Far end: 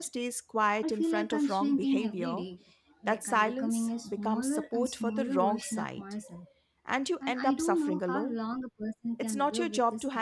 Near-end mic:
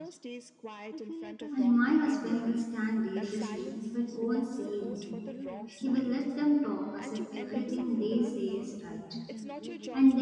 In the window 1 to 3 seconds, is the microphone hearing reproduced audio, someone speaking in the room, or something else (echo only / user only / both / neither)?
both